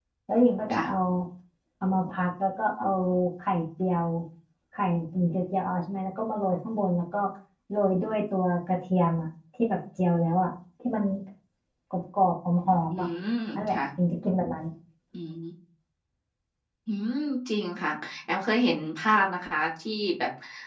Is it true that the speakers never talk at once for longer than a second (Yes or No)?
Yes